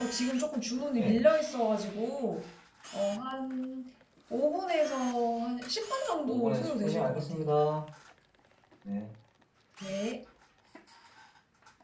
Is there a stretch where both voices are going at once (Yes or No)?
Yes